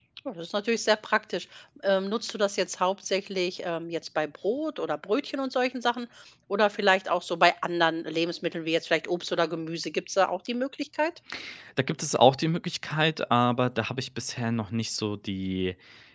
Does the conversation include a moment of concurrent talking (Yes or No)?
No